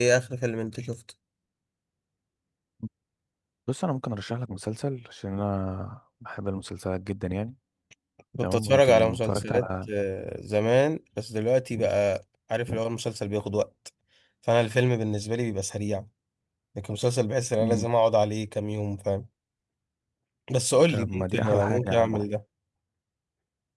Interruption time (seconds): 8 s

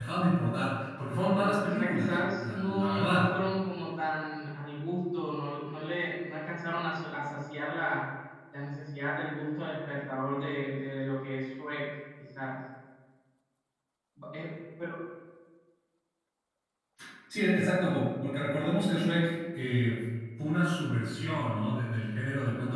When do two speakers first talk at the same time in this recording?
1 s

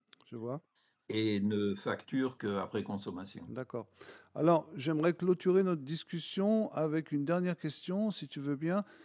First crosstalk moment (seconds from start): none

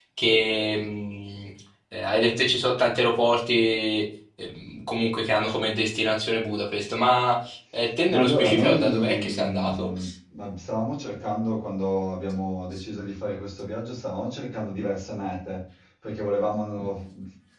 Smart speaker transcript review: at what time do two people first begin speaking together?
8 s

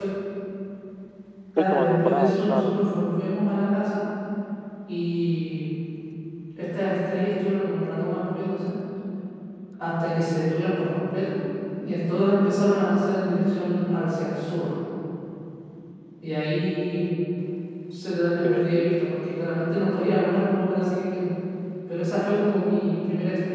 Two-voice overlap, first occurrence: 2 s

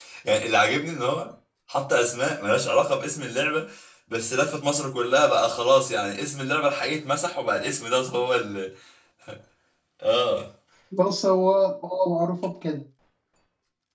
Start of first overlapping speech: none

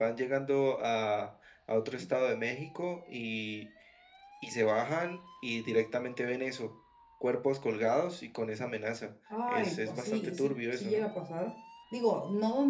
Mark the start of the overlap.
9 s

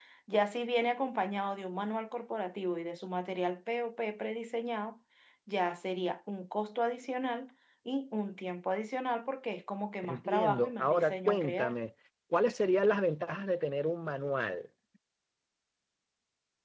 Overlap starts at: 10 s

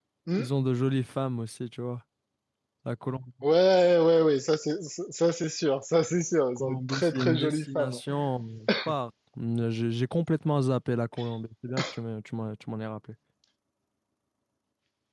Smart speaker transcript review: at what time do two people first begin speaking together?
7 s

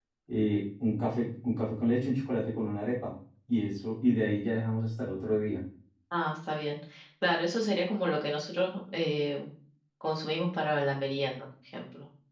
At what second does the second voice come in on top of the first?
none

